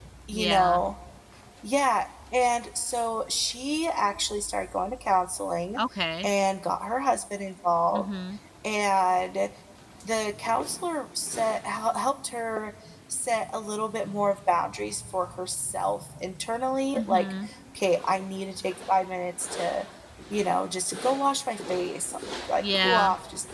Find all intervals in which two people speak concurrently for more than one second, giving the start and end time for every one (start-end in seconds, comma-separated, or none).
none